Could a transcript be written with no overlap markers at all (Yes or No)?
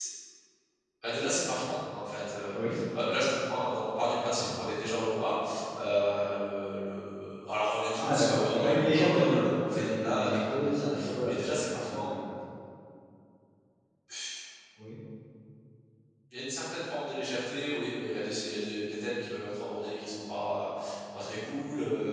No